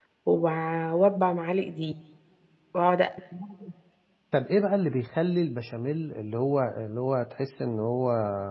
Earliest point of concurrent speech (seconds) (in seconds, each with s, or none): none